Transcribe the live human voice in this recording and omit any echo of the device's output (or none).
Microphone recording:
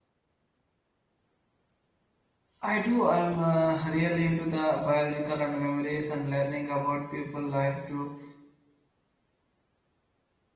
I do. I'm uh, really into the biological and memories and learning about people life to